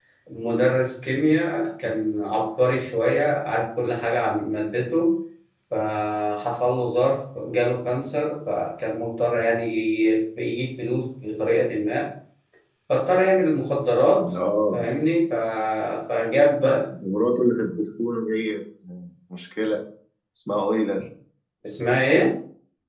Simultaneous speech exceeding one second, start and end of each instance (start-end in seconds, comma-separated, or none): none